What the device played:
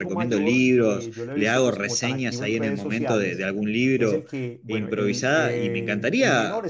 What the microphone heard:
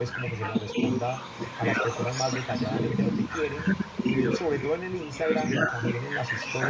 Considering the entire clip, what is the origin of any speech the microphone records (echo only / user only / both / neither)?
both